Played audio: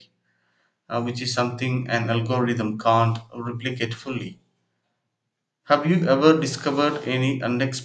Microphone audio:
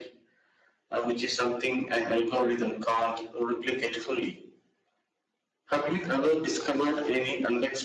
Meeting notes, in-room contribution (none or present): none